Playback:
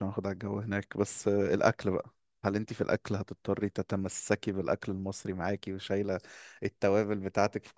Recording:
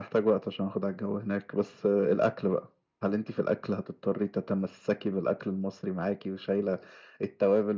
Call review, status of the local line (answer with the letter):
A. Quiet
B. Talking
A